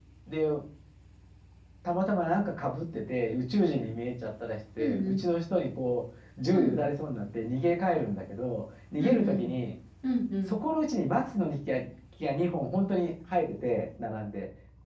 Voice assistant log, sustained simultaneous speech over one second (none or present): none